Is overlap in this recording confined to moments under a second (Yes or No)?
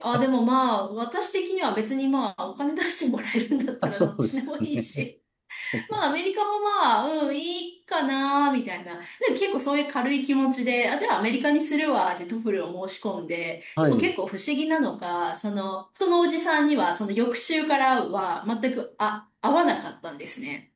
No